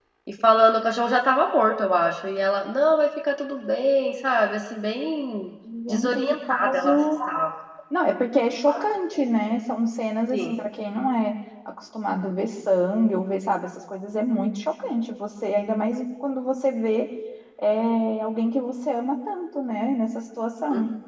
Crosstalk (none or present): present